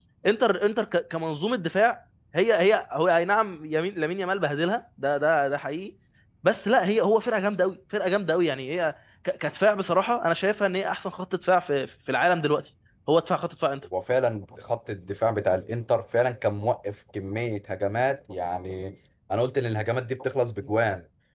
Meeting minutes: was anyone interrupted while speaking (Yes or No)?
No